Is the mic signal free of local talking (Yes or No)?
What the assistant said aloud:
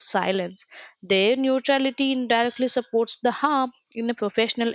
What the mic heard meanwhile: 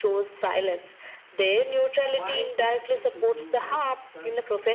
No